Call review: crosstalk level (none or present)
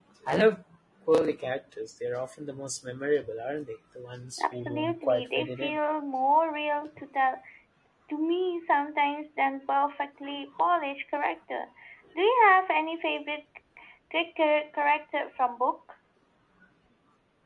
present